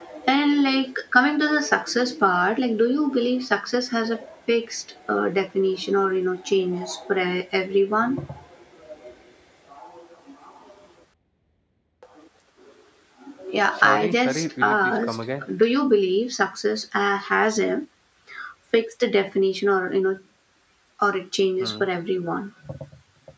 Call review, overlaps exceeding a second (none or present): present